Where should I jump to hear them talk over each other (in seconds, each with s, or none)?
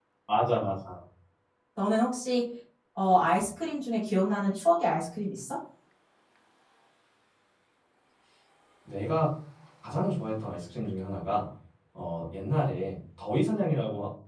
none